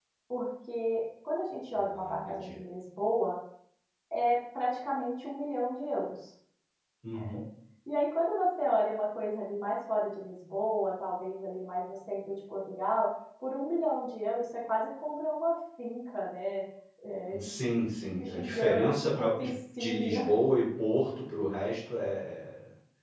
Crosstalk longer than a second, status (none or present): present